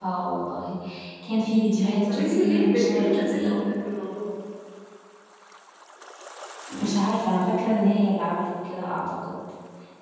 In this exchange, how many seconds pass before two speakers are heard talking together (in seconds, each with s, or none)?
2.1 s